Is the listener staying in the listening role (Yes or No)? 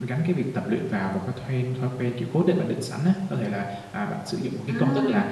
Yes